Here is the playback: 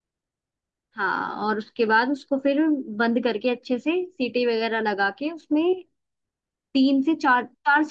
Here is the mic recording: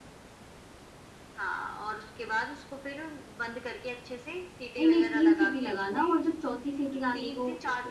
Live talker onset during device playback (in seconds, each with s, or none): 4.8 s